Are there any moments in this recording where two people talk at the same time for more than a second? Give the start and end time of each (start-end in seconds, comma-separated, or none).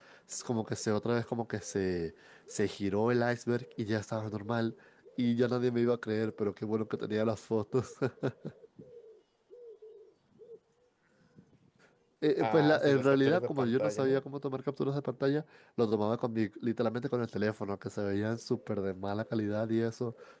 12.4-14.2